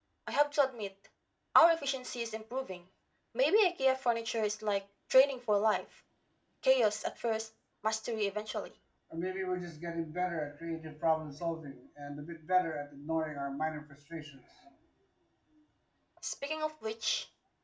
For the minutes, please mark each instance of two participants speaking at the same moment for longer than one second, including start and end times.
none

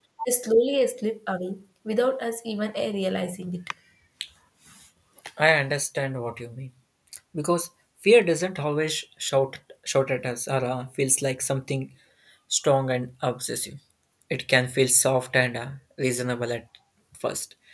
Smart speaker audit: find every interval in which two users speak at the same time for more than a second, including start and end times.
none

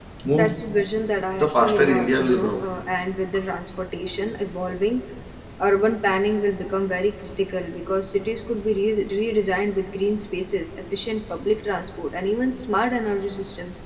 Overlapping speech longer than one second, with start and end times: 1.4-2.6

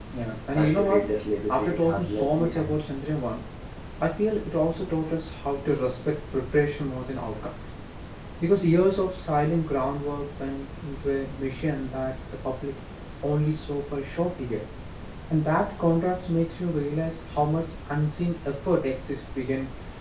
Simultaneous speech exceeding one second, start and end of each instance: 1.5-2.8

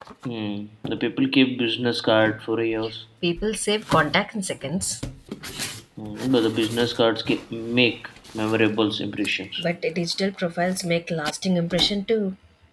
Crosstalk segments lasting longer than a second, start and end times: none

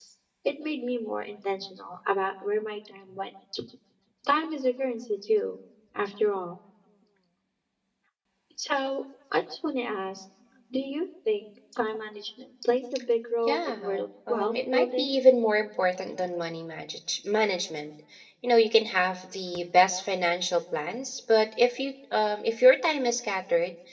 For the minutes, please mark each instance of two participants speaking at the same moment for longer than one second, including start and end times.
13.5-15.1

